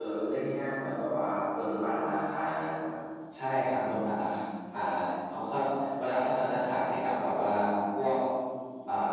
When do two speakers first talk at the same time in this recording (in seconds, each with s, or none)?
none